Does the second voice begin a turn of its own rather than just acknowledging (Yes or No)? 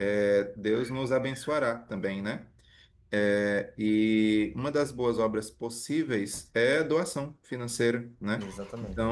No